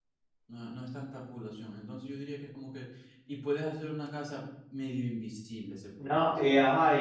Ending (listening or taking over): taking over